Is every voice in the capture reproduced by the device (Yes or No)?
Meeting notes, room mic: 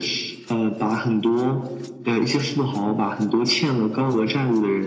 Yes